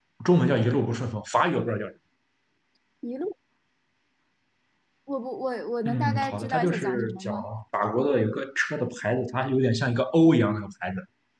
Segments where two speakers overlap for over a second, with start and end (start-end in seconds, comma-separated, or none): 5.8-7.3